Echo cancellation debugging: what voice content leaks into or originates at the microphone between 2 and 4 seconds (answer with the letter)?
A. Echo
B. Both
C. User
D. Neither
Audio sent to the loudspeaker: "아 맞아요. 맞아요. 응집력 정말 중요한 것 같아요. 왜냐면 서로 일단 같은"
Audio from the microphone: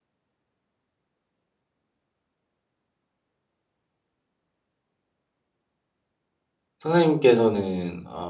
D